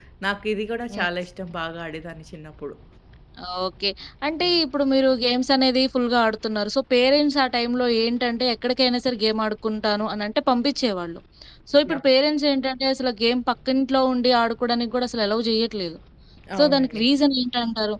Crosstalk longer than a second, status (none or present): none